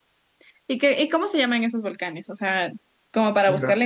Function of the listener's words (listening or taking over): listening